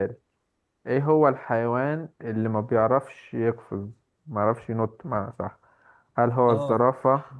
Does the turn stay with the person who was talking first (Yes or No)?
Yes